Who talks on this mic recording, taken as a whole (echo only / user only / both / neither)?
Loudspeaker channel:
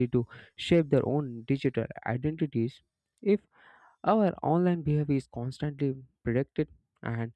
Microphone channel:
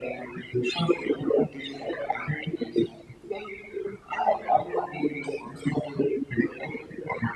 echo only